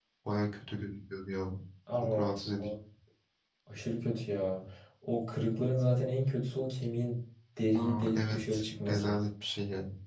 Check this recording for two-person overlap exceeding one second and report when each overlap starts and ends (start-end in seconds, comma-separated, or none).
7.7-9.1